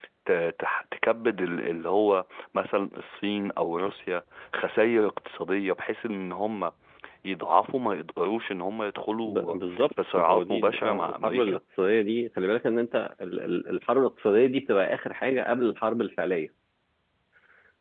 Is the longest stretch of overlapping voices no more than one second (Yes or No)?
No